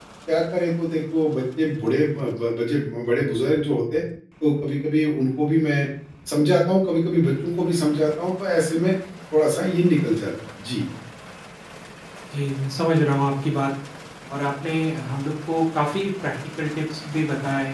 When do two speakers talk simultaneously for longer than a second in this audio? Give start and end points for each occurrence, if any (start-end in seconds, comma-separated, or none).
none